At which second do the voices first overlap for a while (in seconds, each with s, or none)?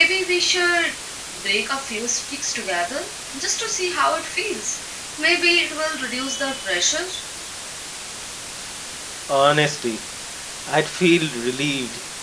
none